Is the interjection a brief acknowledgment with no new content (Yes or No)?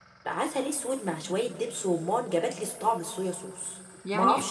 No